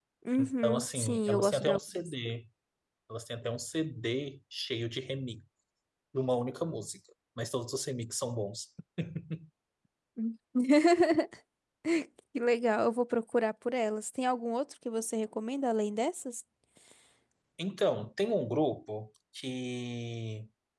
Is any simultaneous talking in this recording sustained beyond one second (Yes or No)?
Yes